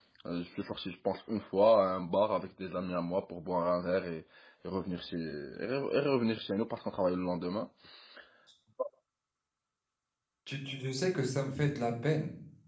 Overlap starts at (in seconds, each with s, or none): none